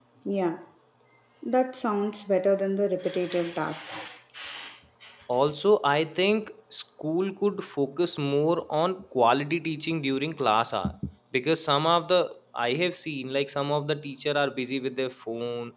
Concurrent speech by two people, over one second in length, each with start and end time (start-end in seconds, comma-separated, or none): none